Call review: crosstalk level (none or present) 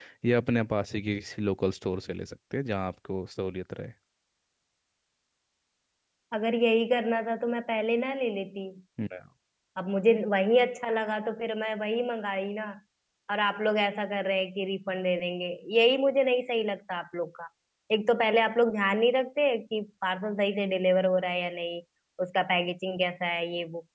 none